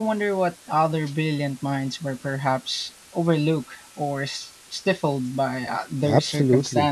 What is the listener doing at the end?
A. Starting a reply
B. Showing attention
A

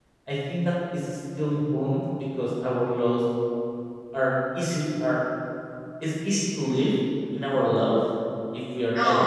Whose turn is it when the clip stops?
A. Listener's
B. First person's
B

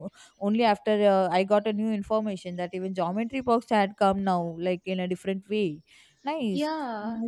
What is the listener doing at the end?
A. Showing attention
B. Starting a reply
B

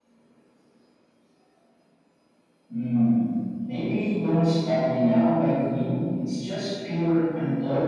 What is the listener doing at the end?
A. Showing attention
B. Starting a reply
B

